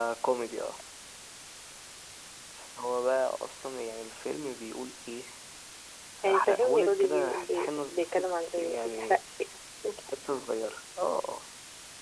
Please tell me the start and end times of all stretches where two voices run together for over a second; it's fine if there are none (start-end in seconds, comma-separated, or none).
6.2-9.2